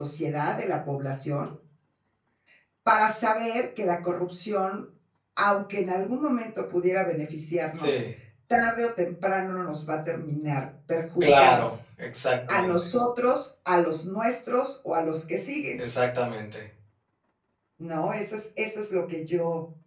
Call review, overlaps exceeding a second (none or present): none